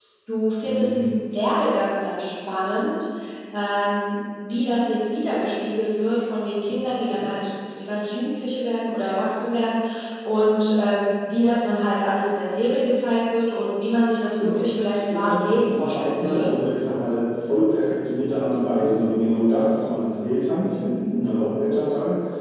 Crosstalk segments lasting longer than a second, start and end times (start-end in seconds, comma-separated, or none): 15.1-16.5